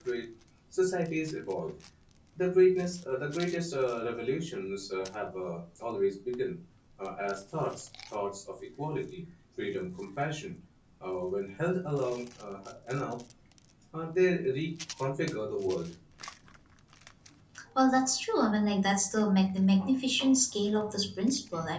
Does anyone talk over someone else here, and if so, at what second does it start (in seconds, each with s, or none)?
none